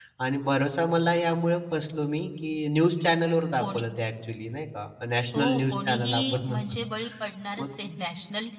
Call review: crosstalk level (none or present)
present